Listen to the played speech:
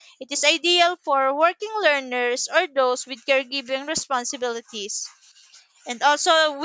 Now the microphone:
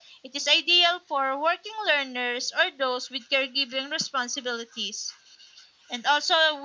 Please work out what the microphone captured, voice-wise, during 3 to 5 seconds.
echo only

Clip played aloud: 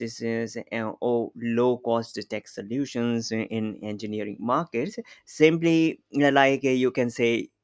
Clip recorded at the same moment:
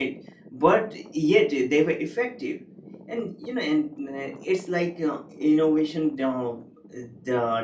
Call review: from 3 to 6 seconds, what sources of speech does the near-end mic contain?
user only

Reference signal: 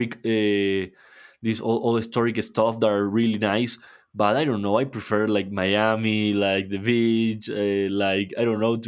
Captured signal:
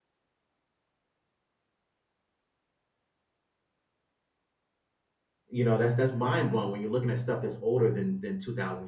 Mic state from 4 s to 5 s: neither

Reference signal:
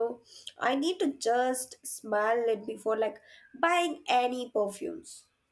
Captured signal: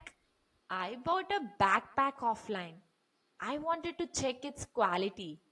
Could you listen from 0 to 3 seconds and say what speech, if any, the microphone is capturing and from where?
user only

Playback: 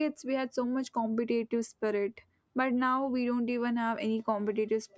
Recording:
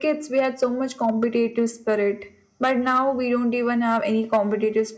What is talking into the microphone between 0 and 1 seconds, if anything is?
echo only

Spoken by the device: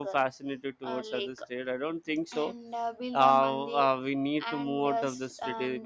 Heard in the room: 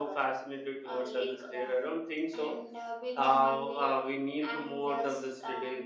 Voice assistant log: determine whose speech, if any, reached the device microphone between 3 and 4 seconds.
echo only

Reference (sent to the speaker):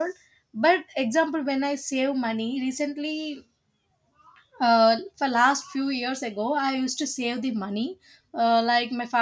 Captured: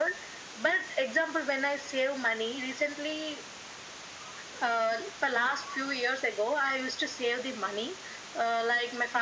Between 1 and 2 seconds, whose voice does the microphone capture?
echo only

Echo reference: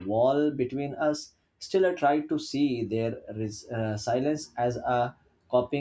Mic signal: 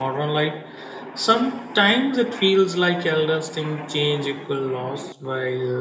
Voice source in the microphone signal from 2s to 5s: user only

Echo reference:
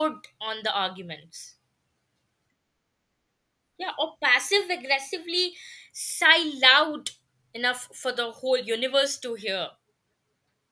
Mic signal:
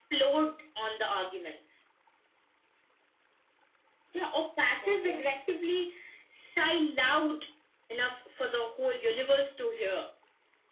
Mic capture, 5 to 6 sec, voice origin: both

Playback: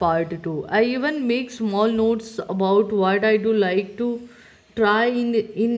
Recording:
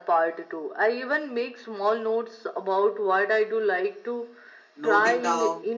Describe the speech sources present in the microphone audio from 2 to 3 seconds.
echo only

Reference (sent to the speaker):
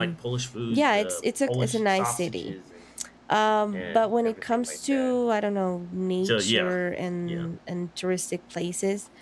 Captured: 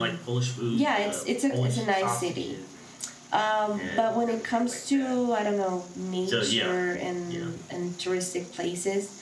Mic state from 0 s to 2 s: echo only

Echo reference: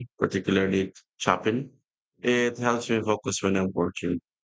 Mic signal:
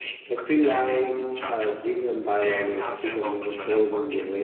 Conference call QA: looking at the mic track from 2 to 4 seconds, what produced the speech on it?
both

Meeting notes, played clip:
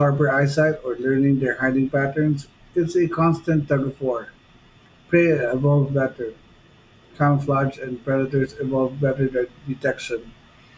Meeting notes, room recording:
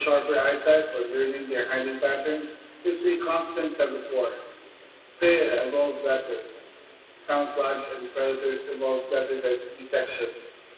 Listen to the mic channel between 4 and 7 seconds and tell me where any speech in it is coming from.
echo only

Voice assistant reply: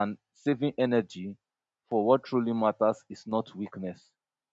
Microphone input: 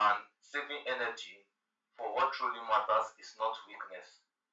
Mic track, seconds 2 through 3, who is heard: echo only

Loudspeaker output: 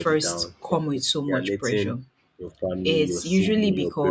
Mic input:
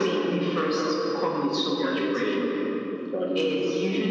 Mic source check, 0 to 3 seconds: echo only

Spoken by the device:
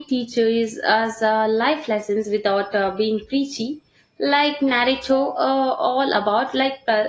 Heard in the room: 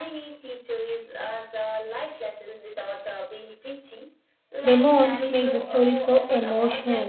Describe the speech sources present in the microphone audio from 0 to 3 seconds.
echo only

